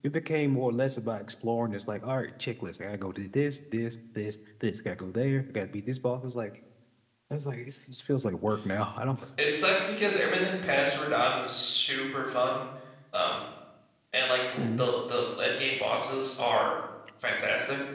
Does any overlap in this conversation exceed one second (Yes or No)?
No